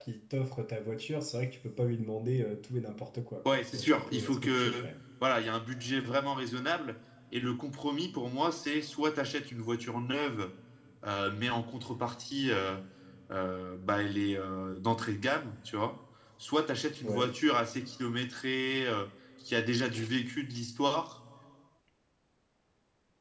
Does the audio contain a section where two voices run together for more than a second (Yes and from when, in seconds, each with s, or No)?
Yes, from 3.4 s